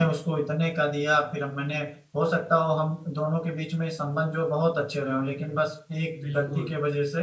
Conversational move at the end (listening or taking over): listening